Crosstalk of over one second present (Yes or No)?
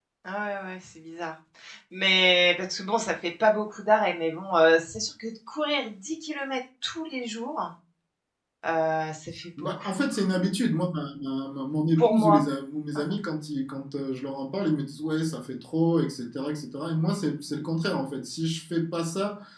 No